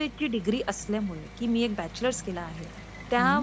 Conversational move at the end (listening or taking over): listening